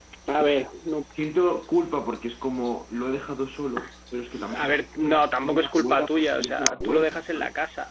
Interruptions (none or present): present